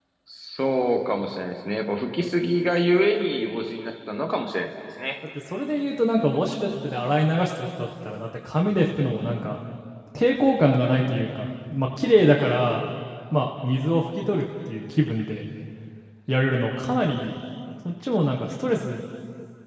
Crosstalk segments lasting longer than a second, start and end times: none

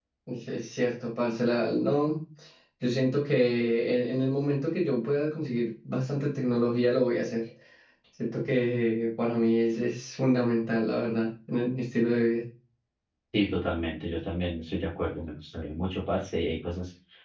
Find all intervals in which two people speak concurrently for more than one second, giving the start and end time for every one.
none

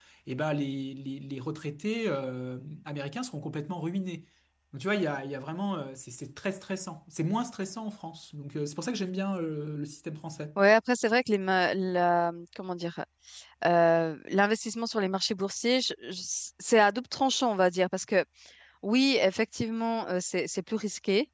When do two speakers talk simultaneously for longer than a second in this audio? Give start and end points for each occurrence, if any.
none

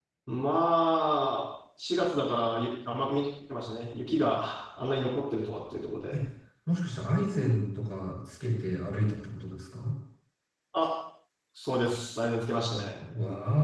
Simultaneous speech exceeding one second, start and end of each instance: none

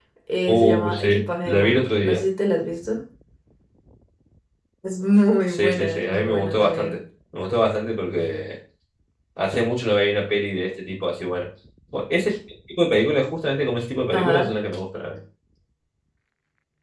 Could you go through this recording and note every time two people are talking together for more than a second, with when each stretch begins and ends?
0.5-2.2, 5.5-7.0

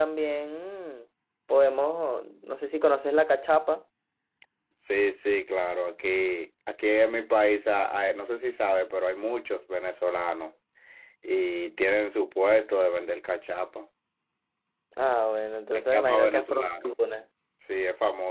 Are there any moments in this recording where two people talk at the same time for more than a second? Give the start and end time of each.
15.8-16.9

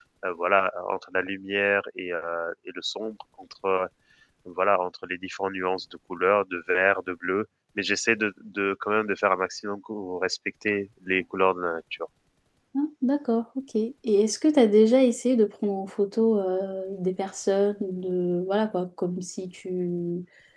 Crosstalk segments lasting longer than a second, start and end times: none

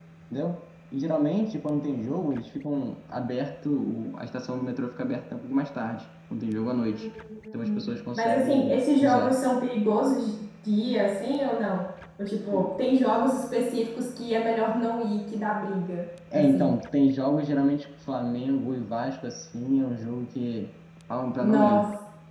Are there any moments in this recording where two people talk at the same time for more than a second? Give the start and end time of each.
7.6-9.3

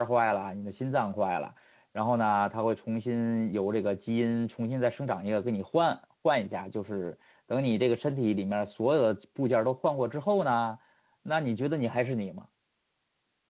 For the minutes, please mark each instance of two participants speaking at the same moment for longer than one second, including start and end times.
none

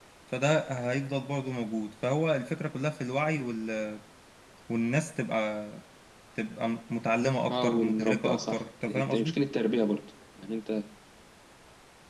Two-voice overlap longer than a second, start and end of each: 7.5-9.4

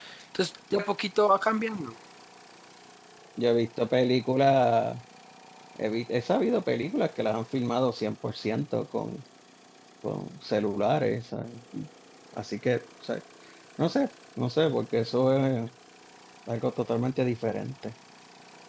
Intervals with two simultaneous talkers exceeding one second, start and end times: none

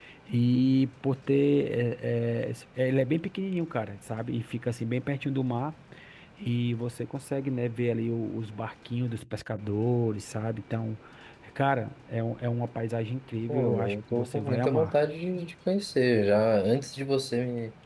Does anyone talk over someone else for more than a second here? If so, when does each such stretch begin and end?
13.5-14.9

